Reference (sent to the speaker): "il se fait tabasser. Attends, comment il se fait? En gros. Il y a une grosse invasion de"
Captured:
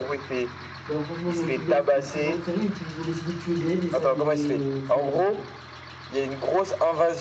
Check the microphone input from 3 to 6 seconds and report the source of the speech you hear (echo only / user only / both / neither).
both